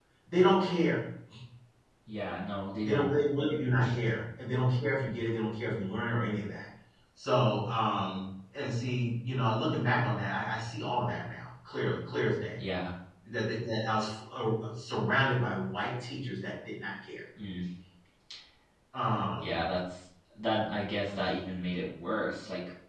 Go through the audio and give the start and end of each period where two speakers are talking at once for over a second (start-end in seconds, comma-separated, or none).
none